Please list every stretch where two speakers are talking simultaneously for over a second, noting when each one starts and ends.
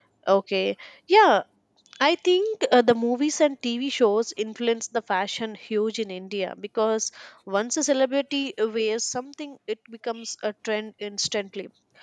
none

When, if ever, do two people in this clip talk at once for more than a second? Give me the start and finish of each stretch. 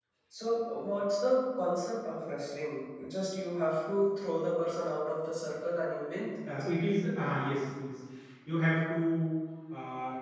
none

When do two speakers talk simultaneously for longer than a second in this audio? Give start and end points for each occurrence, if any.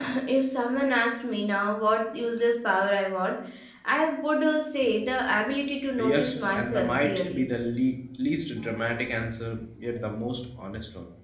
6.0-7.4

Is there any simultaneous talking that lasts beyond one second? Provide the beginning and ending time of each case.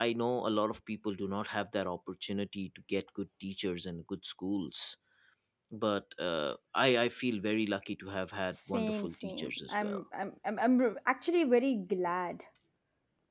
8.7-10.0

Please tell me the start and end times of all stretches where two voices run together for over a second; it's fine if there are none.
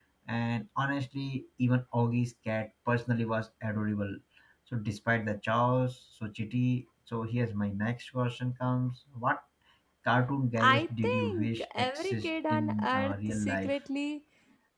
10.6-13.7

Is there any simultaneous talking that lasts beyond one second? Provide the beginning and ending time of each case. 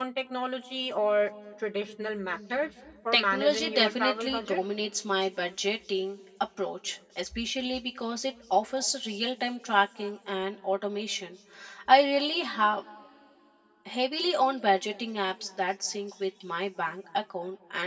3.1-4.6

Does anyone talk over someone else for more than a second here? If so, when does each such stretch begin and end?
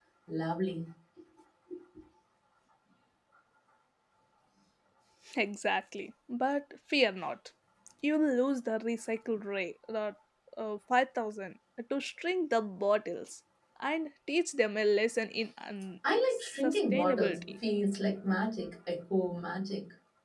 16.3-17.6

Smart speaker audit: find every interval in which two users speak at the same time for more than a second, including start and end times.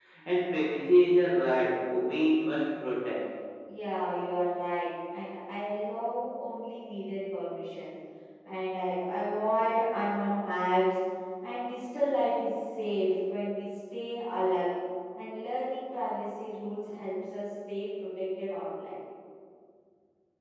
none

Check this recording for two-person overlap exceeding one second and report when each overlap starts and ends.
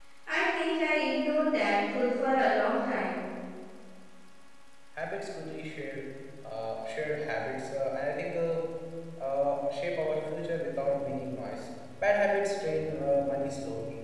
none

